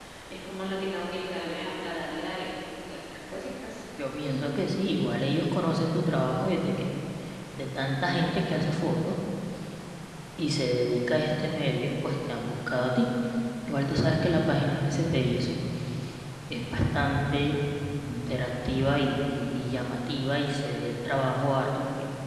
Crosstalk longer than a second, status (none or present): none